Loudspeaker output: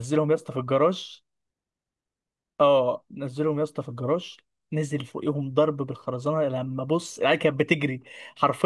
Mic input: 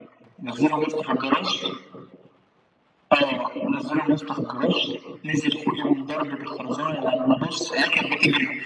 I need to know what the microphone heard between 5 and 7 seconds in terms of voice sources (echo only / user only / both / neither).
echo only